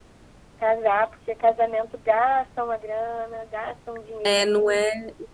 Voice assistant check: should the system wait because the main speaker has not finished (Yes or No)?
No